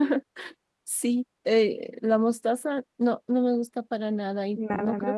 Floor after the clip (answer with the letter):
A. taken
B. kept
B